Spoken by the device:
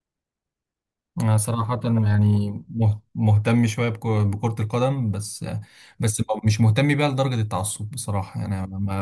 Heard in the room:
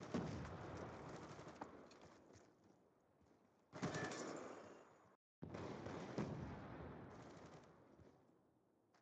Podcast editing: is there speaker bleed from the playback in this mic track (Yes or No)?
No